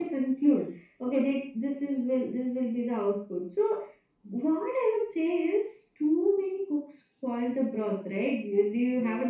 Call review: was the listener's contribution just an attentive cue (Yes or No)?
Yes